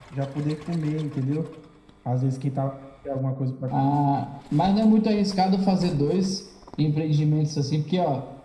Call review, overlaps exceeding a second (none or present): none